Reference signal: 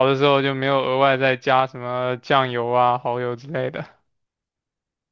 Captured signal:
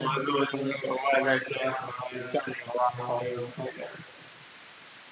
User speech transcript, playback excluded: none

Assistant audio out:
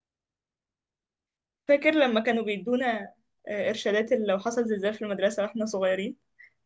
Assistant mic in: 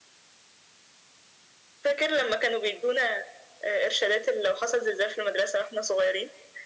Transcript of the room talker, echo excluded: none

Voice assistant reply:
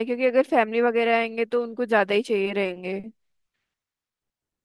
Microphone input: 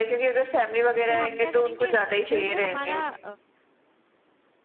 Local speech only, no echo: तो हम क्या करेंगे जो ये हमारा

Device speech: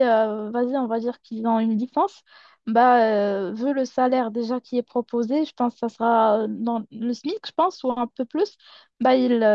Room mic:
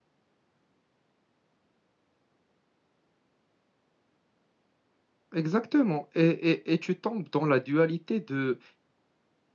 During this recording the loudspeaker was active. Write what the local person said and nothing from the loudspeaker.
exactement. Et, et- et tu tombes dans la dualité de

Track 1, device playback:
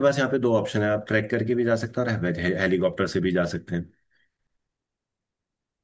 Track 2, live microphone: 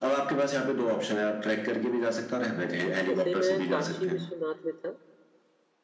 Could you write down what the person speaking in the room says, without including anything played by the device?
वैसे मैं काशी विश्वनाथ में था

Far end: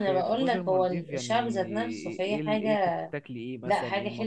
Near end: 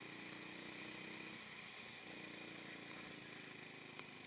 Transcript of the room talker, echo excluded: none

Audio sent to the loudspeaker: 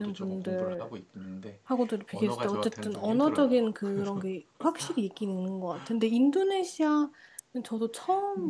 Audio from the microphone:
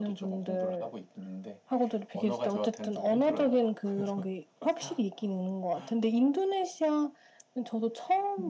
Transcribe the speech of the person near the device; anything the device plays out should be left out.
none

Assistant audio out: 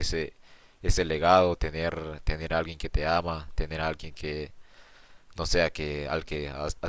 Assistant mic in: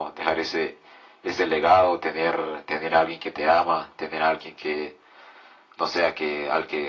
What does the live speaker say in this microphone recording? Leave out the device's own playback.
none

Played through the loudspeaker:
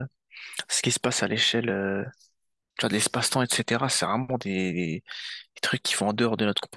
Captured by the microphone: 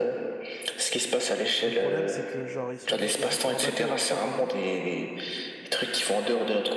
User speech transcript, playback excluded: le problème c'est que genre ils sont ils sont sur un bateau avec toute sa famille

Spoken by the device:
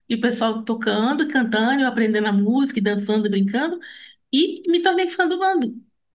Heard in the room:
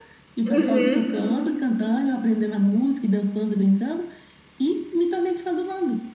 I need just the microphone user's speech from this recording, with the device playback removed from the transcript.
Uhum,

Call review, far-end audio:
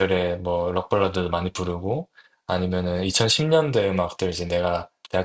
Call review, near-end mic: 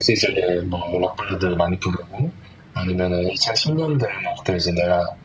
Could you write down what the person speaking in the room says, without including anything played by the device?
none

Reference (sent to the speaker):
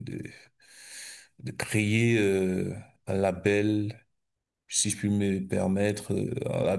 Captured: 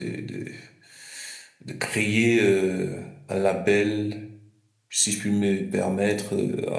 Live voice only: none

